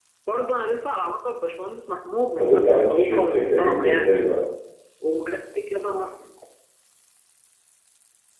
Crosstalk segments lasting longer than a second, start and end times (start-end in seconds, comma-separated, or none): 2.4-4.1